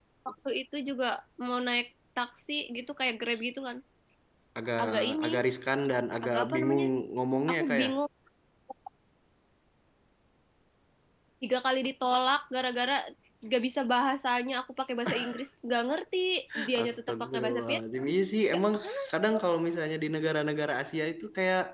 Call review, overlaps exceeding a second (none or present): present